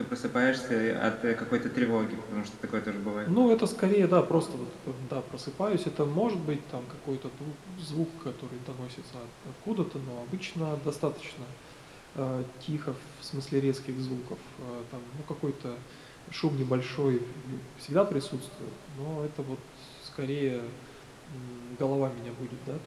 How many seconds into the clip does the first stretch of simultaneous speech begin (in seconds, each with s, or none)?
none